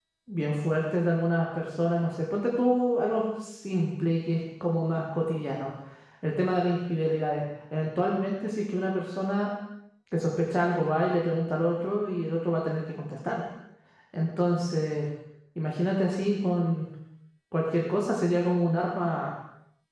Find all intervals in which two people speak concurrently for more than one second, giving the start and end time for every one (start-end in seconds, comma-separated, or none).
none